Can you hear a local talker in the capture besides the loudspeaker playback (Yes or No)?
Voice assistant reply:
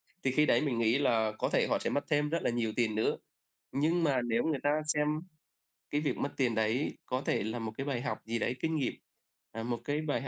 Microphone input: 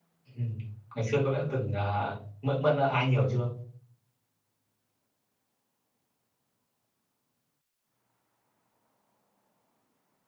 Yes